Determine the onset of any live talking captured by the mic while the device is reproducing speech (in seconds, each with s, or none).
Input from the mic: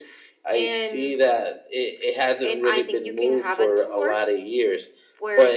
none